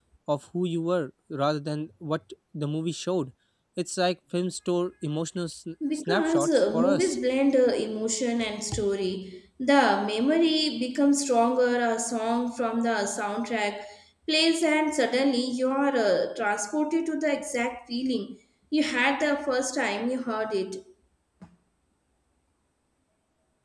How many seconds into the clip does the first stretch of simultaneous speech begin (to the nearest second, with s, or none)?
6 s